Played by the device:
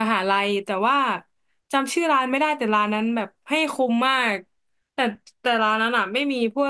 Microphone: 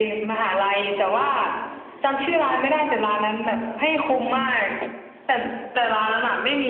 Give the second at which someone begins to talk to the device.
none

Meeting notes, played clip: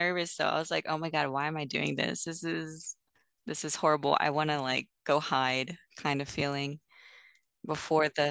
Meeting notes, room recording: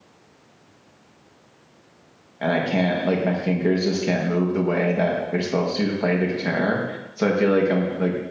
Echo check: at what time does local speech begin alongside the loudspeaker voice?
2.4 s

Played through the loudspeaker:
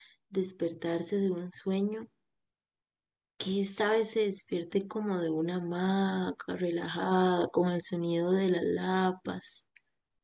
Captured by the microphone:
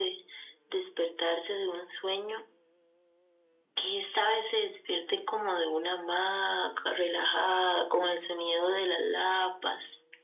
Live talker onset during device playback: none

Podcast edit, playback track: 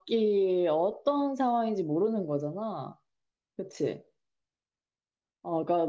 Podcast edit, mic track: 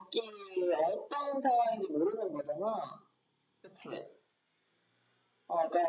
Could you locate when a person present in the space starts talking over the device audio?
none

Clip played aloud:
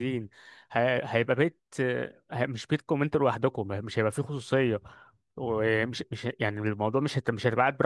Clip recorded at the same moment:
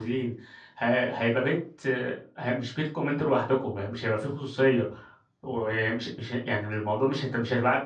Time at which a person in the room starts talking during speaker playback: none

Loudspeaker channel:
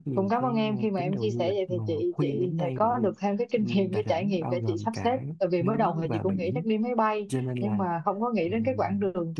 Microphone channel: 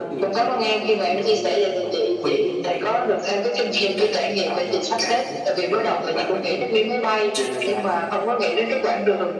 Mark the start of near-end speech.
none

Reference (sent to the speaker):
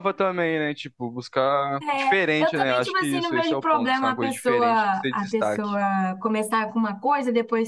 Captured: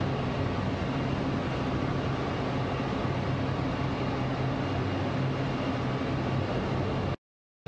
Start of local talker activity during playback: none

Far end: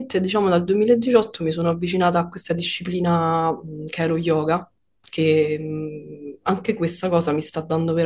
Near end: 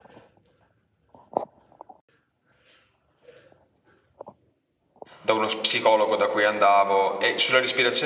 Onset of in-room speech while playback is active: 5.2 s

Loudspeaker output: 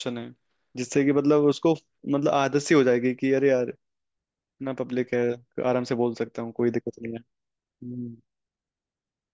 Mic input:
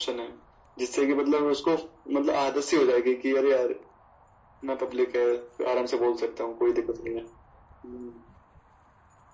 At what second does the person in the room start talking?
none

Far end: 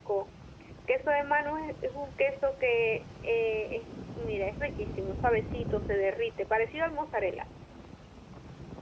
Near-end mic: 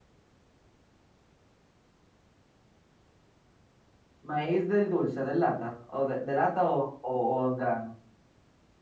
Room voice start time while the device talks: 4.2 s

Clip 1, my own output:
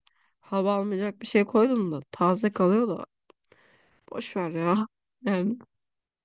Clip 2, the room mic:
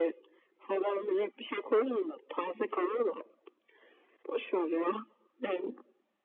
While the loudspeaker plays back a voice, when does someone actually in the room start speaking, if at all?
none

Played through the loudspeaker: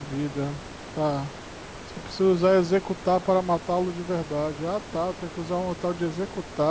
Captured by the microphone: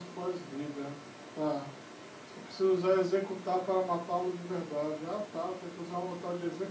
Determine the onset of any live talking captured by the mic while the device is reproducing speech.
none

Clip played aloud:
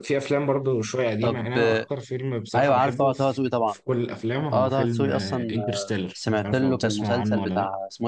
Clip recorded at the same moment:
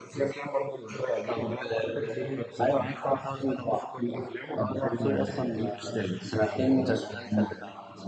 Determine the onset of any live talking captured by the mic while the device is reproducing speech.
none

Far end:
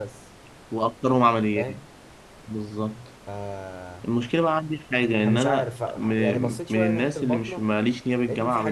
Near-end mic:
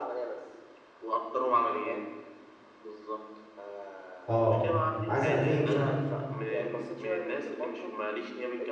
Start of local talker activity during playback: 4.3 s

